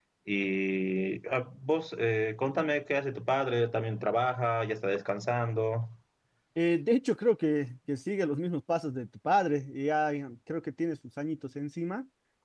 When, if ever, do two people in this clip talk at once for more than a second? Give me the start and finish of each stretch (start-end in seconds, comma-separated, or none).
none